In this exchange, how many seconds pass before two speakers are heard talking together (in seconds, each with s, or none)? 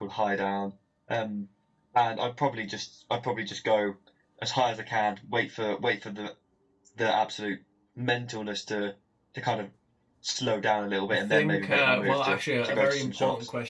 11.1 s